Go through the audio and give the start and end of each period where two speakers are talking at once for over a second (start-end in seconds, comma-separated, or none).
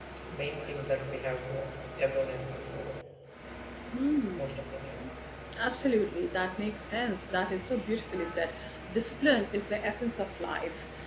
none